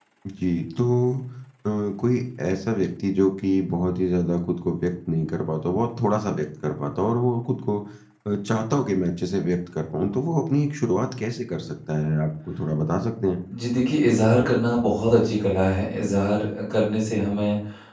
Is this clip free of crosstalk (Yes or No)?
Yes